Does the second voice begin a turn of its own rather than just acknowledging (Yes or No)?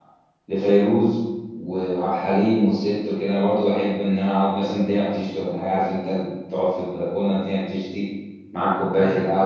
No